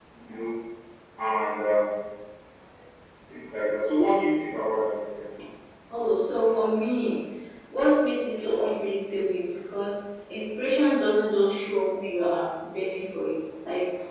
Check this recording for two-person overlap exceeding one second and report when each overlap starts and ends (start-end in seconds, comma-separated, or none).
none